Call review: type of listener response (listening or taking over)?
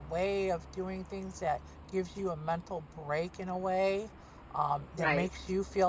listening